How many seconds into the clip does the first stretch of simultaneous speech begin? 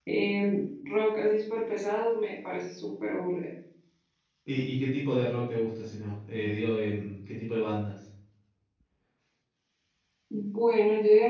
none

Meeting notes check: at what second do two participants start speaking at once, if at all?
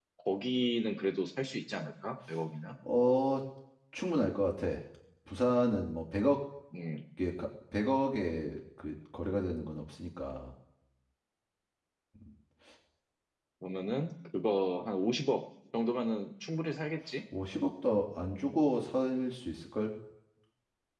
none

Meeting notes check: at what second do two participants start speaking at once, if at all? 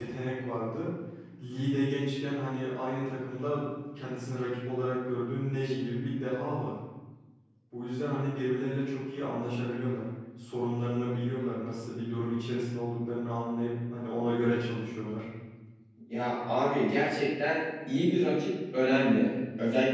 none

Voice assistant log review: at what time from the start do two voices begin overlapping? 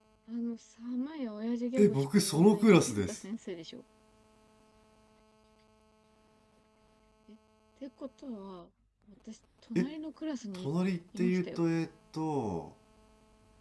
2 s

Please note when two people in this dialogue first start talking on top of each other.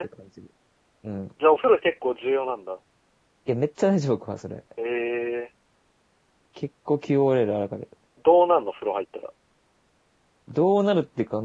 none

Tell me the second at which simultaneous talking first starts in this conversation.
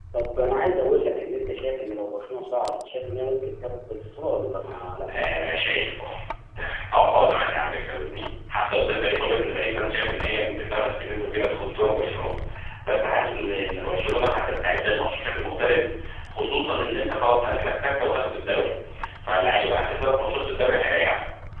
none

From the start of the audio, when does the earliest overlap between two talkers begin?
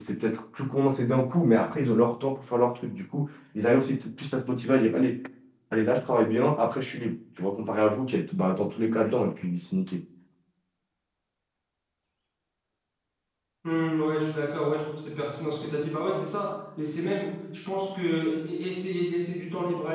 none

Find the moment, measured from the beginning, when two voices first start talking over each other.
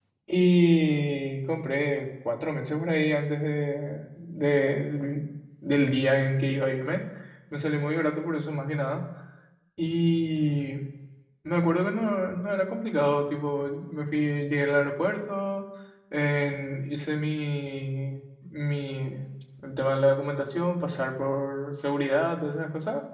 none

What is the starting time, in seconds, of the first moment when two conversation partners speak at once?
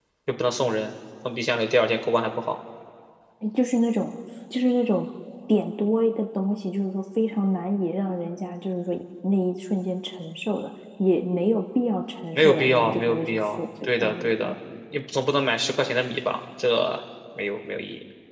12 s

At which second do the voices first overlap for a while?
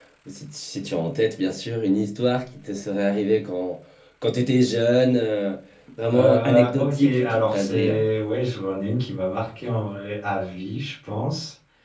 6 s

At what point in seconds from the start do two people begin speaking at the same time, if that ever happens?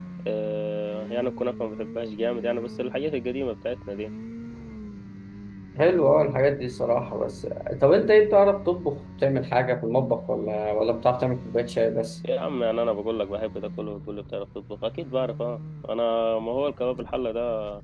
none

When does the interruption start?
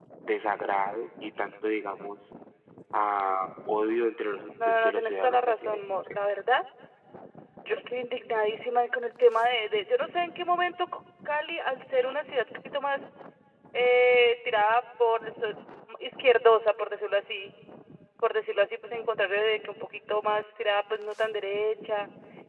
5 s

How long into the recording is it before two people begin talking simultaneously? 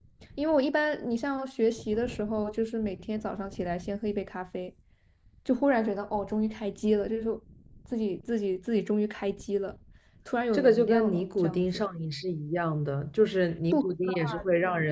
11 s

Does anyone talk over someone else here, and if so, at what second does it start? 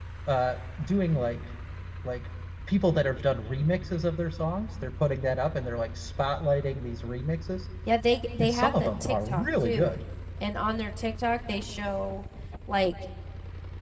8 s

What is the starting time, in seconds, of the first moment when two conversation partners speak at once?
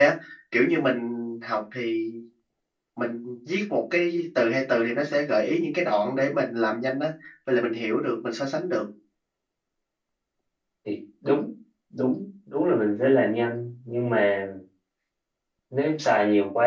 none

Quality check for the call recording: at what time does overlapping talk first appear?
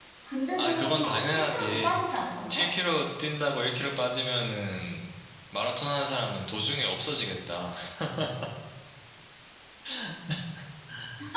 1 s

